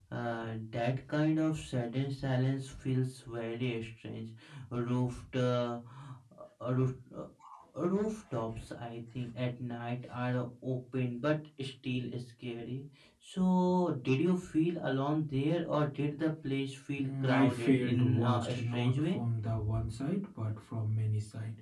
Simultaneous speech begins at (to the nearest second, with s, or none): 17 s